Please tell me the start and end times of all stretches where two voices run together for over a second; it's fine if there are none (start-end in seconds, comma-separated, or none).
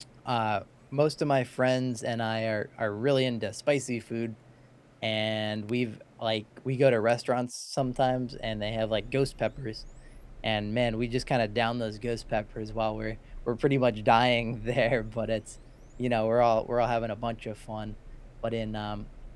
none